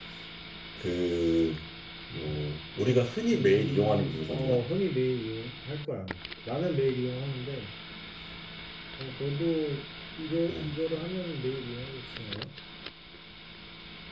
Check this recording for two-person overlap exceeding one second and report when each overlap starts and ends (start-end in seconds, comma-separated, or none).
3.3-4.6